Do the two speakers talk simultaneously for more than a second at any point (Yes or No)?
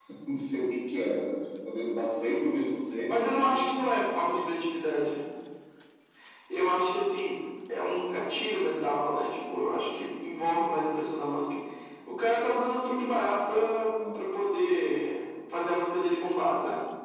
No